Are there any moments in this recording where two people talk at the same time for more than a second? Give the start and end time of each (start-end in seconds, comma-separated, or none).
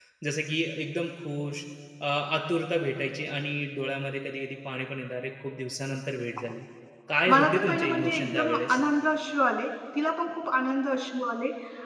7.3-8.8